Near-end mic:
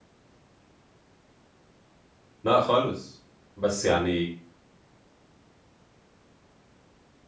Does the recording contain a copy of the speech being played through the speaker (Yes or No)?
No